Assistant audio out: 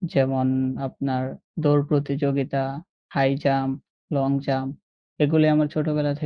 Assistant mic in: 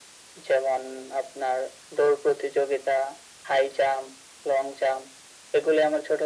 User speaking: No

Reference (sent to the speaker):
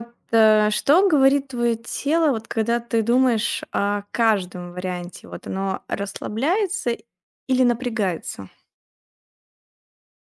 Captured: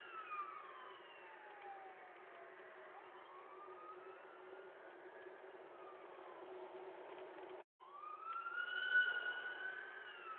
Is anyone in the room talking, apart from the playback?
No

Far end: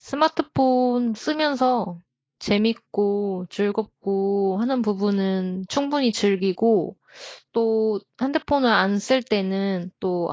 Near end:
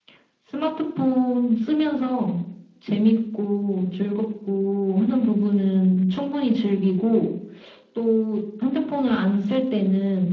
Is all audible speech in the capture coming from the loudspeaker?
Yes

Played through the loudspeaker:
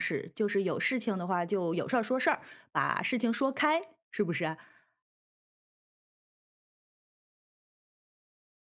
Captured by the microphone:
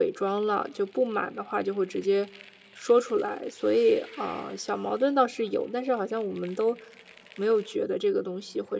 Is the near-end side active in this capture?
Yes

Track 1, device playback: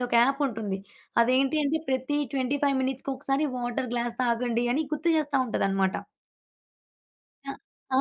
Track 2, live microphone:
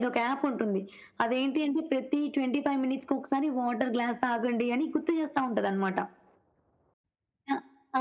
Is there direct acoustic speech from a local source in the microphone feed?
No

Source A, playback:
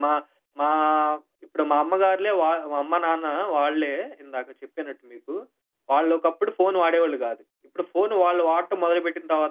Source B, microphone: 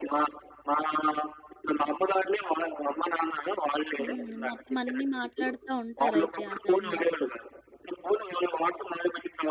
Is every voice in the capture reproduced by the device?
No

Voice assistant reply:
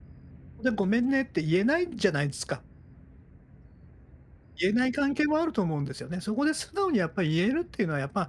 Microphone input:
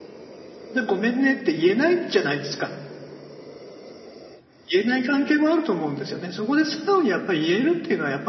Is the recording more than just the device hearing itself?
No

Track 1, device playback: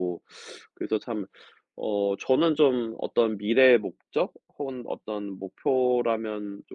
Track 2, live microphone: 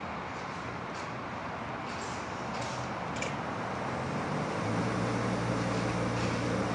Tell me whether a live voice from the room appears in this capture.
No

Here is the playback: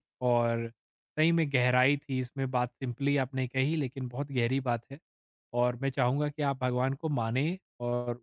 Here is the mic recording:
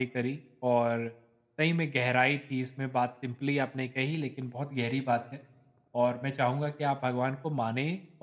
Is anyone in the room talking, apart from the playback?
No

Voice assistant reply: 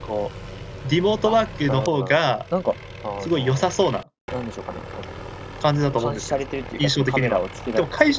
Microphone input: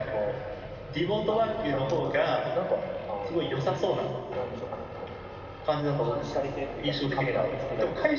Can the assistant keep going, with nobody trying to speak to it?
Yes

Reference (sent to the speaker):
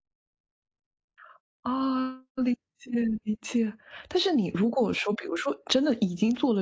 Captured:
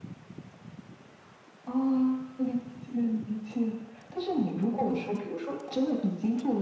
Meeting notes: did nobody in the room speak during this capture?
Yes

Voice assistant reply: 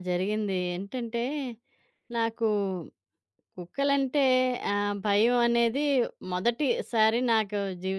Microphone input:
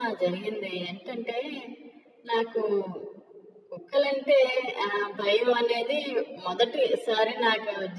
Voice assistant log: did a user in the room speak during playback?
No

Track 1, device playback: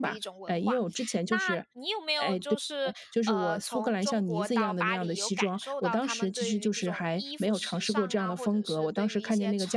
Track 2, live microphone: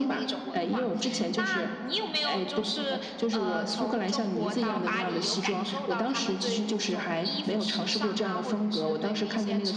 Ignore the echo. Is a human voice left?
No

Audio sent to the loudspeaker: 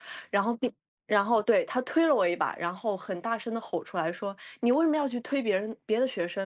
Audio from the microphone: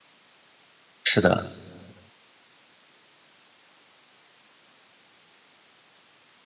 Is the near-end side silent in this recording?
No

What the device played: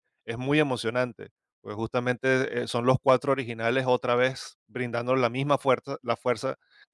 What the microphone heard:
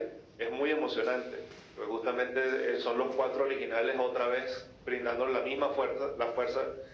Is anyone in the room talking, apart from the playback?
No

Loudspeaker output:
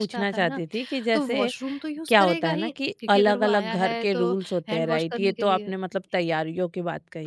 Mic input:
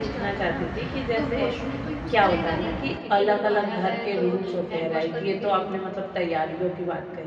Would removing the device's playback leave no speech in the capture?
Yes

